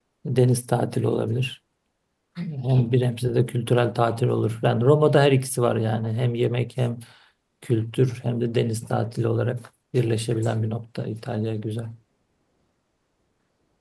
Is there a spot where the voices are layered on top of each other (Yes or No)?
No